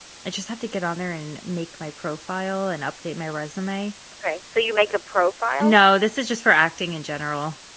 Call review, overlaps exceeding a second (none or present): none